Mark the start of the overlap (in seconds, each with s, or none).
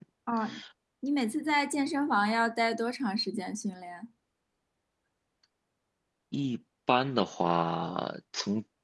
none